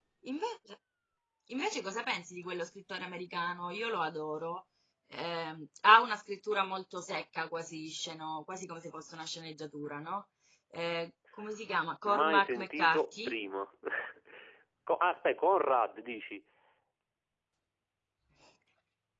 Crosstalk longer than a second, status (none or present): present